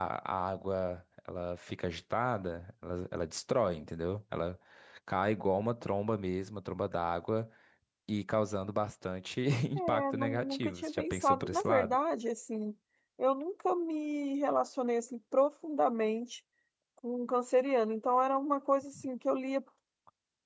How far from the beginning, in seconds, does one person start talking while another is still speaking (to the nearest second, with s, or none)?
10 s